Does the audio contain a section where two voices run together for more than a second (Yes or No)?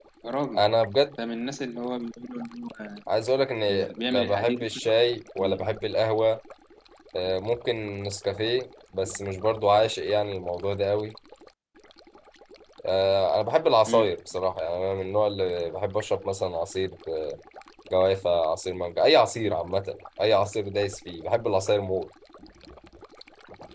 Yes